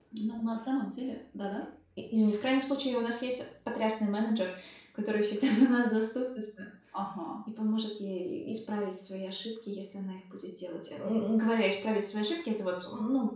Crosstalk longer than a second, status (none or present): none